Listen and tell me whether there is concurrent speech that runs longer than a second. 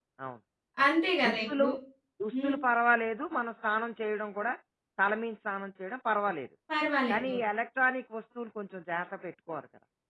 No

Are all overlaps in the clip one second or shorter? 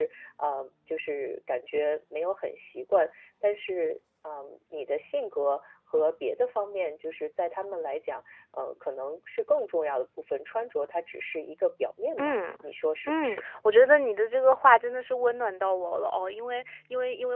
Yes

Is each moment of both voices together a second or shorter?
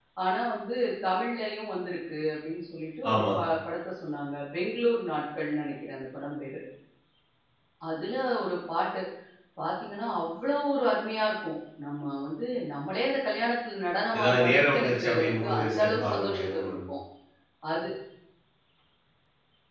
No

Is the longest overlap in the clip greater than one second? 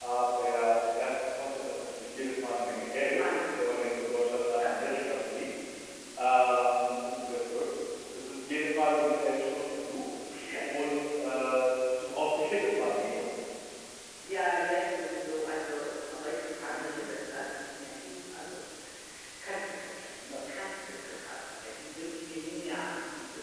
No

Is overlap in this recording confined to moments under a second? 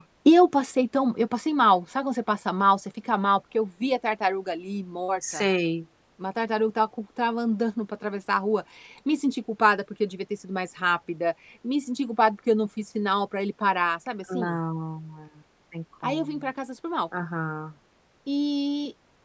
Yes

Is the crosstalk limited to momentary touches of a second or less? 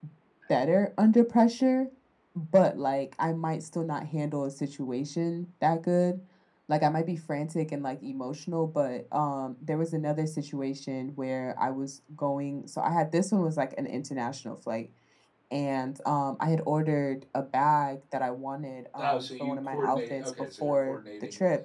No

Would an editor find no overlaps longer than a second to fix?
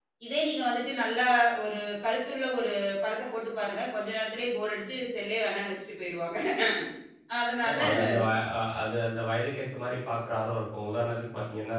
Yes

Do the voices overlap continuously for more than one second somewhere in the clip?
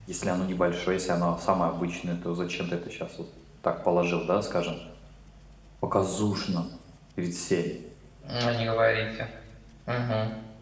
No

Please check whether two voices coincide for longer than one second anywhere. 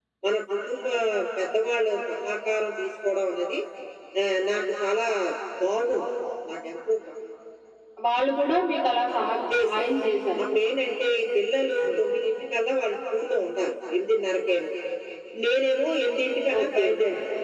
No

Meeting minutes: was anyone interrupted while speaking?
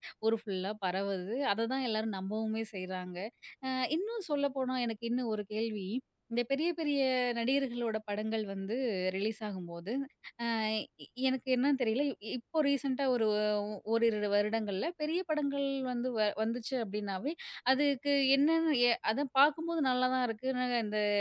No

